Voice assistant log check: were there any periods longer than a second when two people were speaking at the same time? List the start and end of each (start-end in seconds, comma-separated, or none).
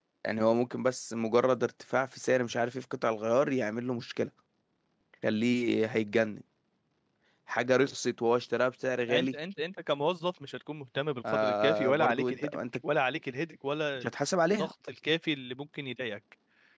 11.3-12.6